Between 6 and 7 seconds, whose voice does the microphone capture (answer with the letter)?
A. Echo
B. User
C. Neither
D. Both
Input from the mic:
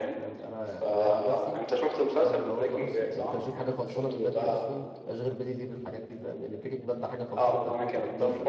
B